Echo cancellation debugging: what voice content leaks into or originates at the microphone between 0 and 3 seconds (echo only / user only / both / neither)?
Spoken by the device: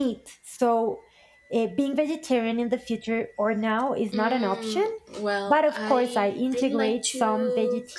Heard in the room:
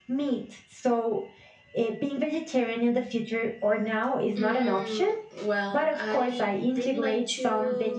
echo only